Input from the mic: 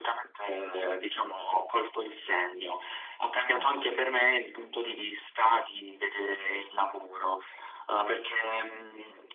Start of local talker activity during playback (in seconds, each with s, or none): 3.5 s